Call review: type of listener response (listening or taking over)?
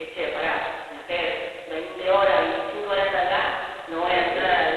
listening